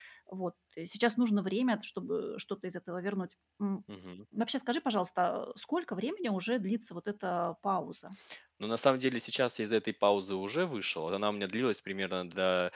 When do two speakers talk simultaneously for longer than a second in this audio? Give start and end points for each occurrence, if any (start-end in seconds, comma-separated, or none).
none